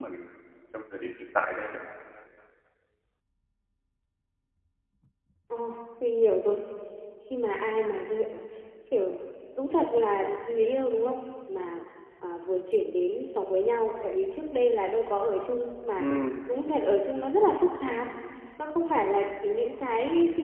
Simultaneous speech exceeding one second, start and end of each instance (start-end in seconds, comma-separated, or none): none